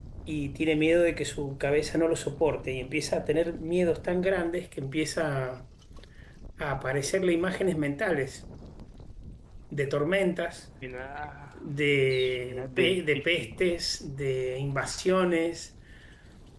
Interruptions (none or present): present